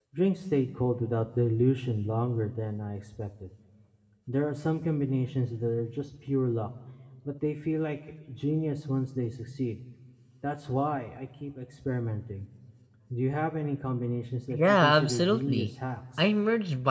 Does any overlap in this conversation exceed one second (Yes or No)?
Yes